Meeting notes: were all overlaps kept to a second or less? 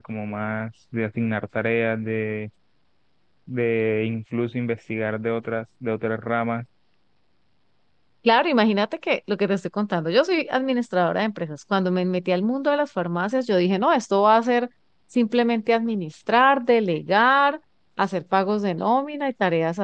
Yes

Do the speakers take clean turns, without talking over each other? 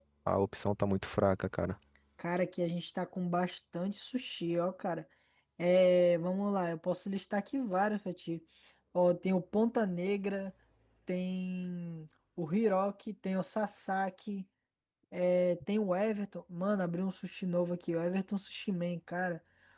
Yes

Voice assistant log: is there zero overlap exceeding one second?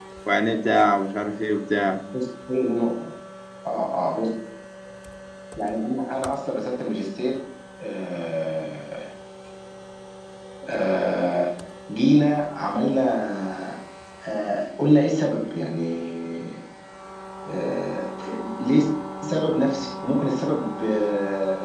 Yes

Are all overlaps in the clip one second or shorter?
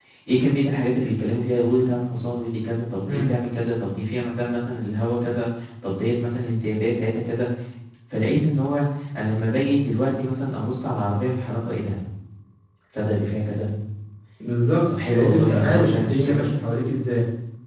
No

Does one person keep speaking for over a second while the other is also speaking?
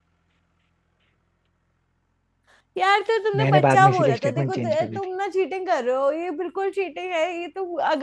Yes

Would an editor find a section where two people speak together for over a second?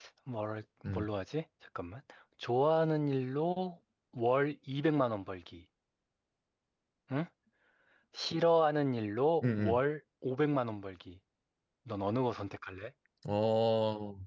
No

